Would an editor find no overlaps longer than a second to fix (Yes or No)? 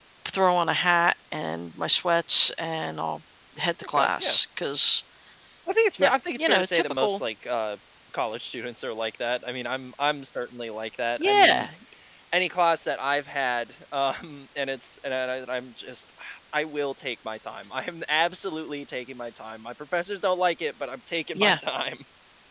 No